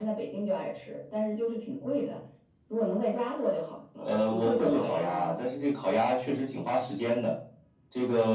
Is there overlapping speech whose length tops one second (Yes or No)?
Yes